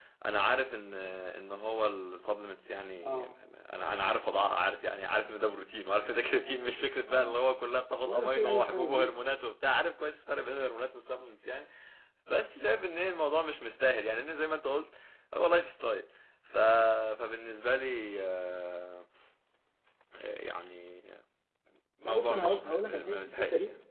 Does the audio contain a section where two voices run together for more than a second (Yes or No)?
Yes